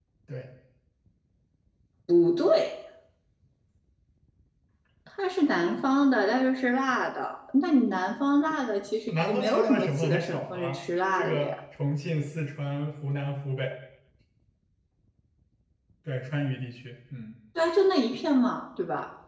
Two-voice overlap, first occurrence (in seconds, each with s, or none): 9.1 s